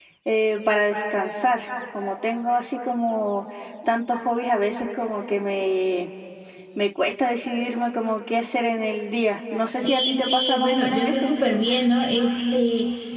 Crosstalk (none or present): present